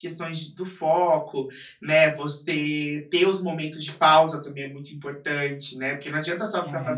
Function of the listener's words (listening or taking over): listening